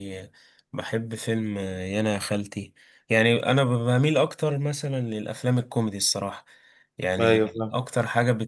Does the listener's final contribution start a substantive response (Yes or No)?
No